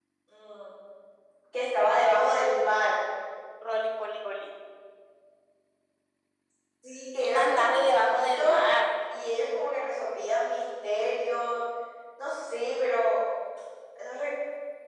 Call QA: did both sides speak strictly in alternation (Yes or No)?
No